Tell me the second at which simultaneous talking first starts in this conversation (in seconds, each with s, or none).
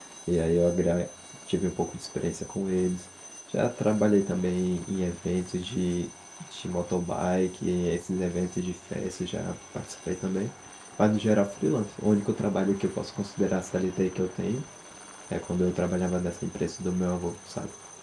none